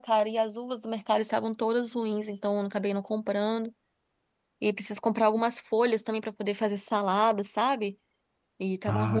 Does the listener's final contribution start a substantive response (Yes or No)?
No